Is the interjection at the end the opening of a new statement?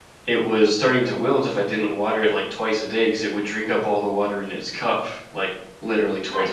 Yes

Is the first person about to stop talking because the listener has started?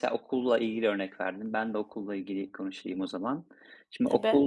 No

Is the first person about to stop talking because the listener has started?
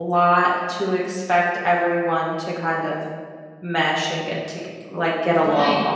Yes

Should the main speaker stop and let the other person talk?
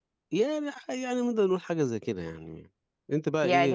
Yes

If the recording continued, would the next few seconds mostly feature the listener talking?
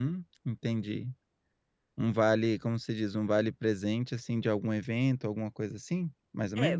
Yes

